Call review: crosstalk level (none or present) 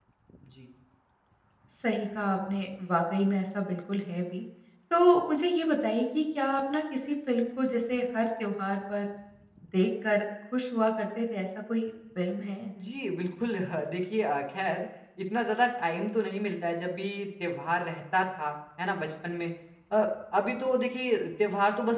none